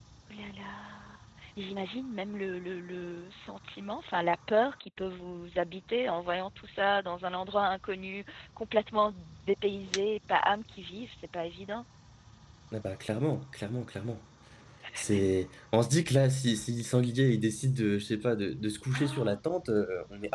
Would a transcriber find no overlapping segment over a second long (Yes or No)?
Yes